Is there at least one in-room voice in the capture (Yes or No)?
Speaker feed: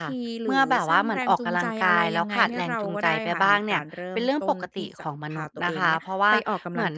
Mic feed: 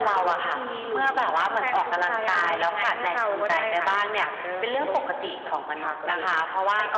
No